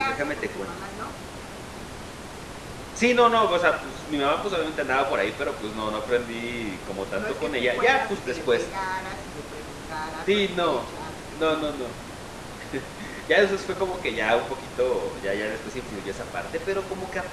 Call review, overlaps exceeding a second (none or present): present